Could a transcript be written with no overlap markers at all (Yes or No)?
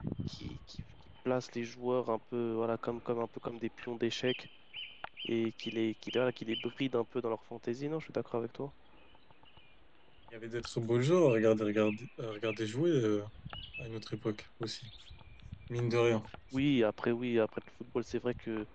Yes